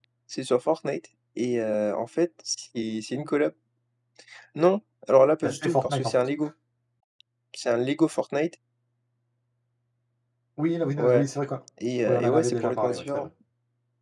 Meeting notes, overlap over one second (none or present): present